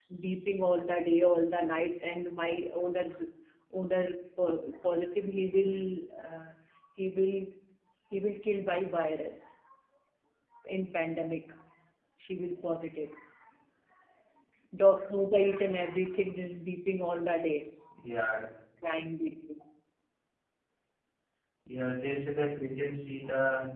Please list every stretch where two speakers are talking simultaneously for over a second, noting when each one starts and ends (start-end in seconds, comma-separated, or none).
none